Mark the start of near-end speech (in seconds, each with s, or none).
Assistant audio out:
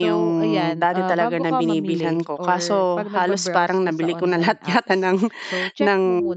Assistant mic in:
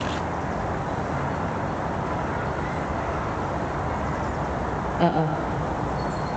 5.0 s